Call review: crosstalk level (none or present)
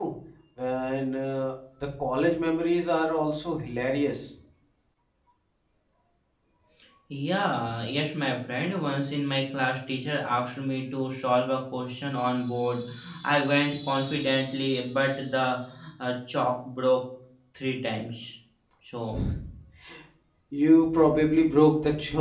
none